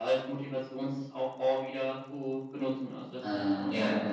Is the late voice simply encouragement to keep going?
No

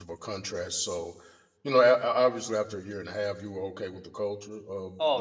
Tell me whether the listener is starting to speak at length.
Yes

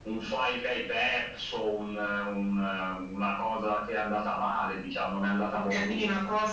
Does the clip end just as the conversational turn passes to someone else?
Yes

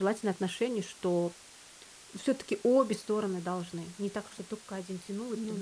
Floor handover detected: Yes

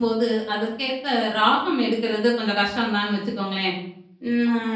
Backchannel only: Yes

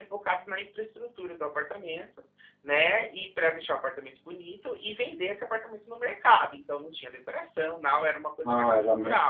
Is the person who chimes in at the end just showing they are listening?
No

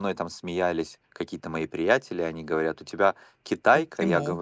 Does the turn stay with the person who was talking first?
Yes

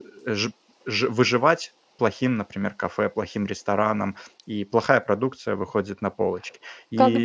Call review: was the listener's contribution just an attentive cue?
No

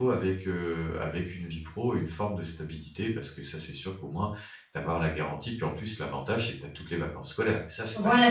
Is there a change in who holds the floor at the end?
Yes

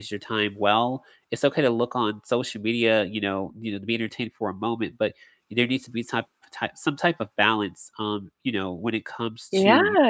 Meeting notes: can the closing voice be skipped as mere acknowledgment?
No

